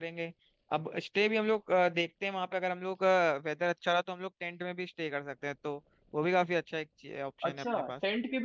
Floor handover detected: Yes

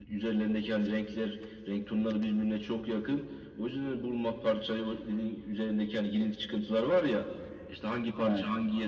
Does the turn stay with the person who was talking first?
Yes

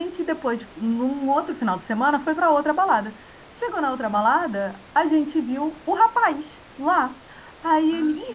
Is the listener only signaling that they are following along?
Yes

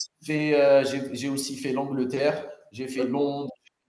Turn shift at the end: No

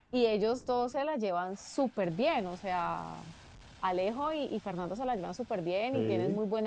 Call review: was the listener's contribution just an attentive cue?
Yes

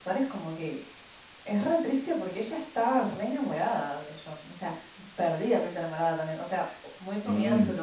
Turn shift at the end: No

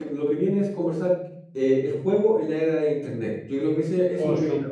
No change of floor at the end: No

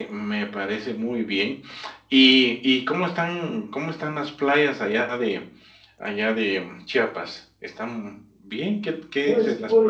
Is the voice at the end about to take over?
Yes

